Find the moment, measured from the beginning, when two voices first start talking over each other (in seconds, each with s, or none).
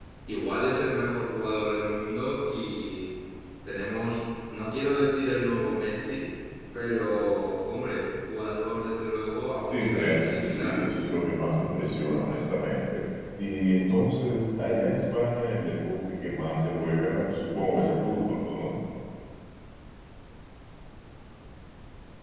9.6 s